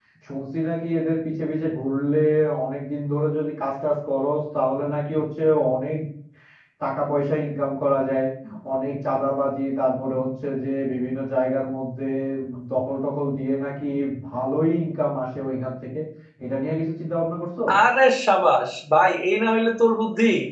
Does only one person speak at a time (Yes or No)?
Yes